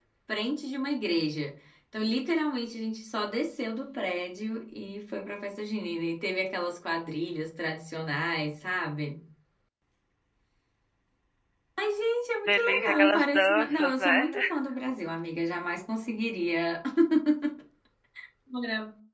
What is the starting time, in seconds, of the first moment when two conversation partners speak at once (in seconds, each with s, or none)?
12.5 s